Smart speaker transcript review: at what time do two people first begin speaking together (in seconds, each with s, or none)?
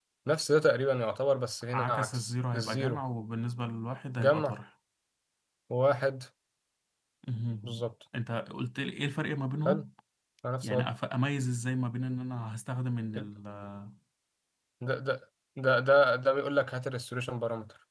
1.7 s